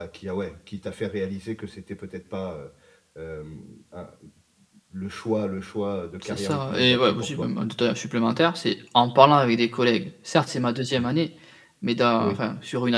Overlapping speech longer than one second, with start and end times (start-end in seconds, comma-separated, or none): 6.2-7.5